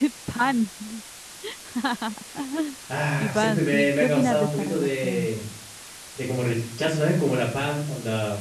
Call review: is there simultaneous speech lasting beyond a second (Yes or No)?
Yes